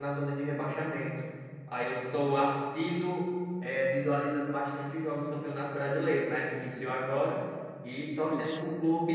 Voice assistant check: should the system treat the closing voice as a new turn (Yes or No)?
No